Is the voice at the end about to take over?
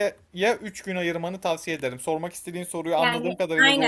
Yes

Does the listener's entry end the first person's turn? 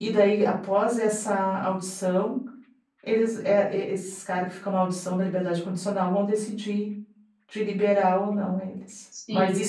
No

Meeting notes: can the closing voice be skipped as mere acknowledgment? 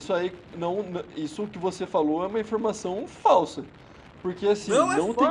No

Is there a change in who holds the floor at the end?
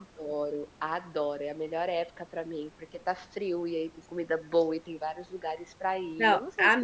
Yes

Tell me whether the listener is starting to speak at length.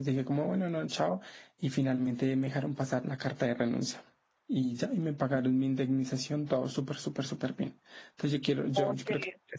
No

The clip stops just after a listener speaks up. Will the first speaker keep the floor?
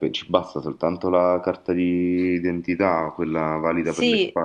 No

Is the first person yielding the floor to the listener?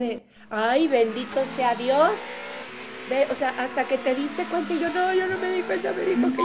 Yes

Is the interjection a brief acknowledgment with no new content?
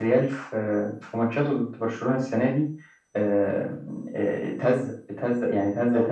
No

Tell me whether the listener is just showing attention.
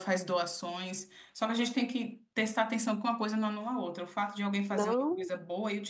Yes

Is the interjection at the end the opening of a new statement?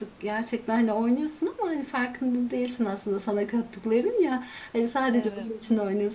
No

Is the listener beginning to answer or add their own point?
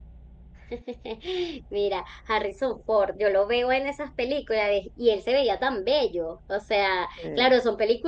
No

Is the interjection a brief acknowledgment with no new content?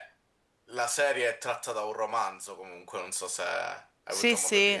No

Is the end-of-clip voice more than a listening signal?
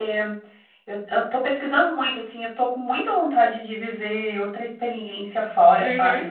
No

